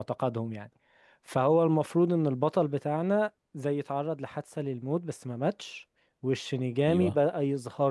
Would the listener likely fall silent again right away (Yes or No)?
Yes